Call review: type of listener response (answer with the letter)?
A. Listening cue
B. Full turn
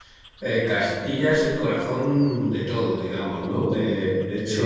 B